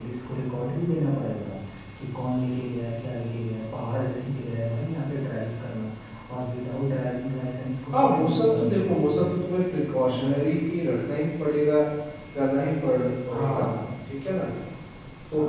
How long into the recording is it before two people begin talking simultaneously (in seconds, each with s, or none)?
7.9 s